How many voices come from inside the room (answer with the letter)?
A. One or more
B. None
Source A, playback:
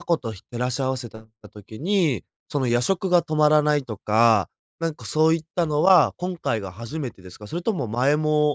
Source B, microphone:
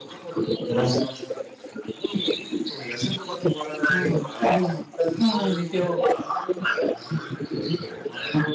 A